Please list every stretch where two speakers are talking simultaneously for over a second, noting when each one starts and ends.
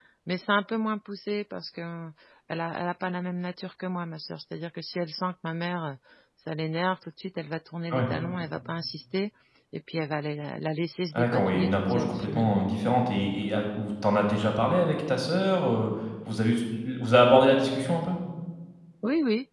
11.1-12.6

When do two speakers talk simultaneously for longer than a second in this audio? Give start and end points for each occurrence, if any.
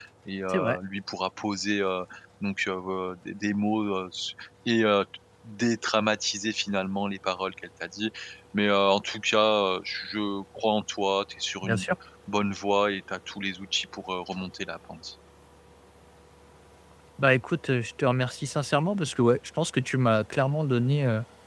none

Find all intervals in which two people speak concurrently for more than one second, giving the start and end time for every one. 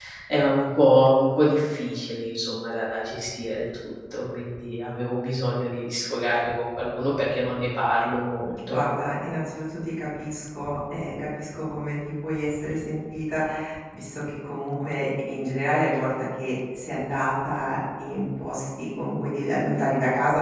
none

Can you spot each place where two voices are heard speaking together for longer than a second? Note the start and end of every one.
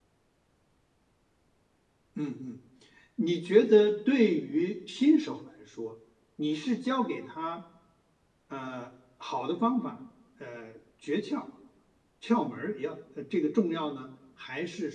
none

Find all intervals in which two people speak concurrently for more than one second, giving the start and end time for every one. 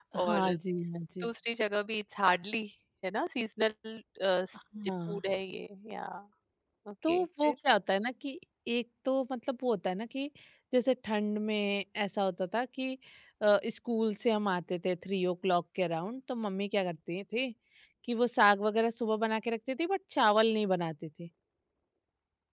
none

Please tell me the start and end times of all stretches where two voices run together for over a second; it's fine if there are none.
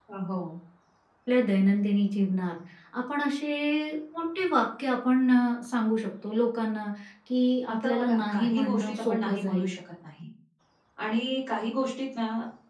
7.7-9.7

